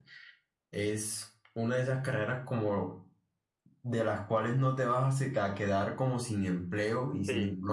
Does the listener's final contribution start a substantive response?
No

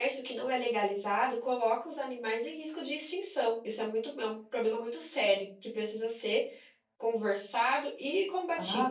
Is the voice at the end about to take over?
Yes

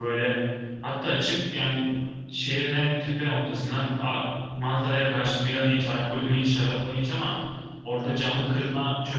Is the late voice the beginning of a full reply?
No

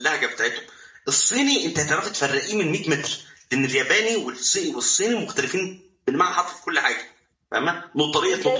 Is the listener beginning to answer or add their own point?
No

